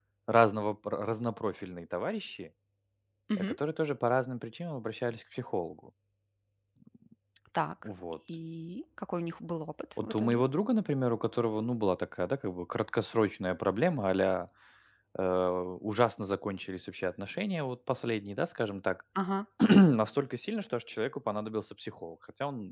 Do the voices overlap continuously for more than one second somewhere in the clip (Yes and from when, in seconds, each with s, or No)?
No